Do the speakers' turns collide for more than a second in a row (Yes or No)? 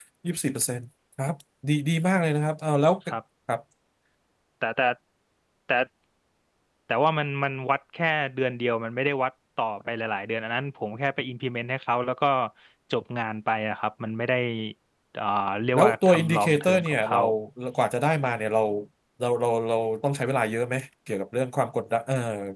Yes